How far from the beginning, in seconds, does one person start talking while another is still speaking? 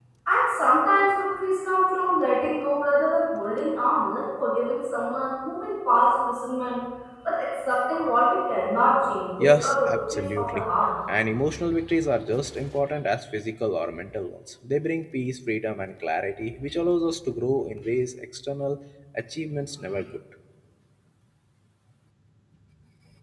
9.4 s

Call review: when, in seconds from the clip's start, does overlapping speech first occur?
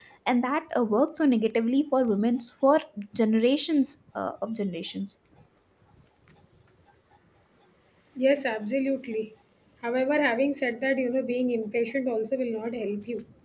none

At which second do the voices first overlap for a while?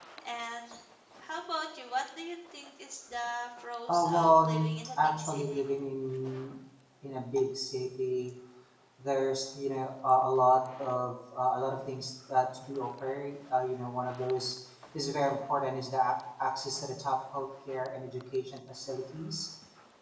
3.9 s

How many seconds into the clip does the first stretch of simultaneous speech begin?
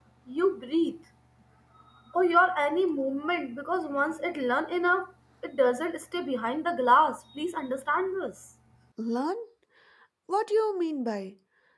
none

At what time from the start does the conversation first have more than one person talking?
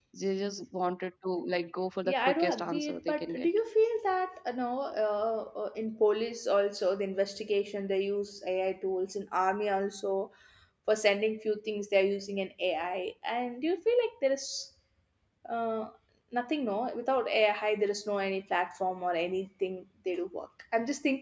2.0 s

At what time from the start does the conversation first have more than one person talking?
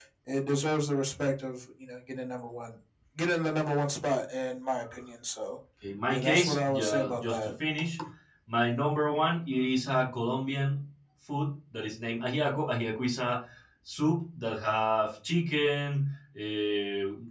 6.1 s

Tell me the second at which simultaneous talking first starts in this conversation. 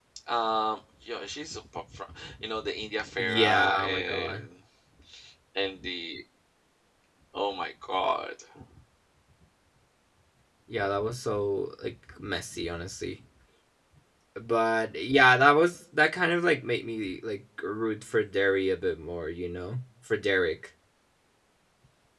3.2 s

